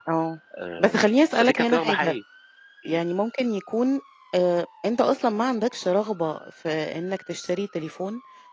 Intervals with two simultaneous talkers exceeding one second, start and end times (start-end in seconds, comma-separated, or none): 0.8-2.1